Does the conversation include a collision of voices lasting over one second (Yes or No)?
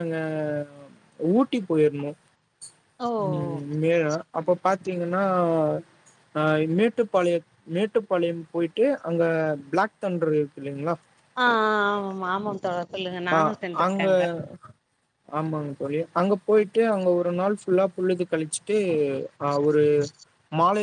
No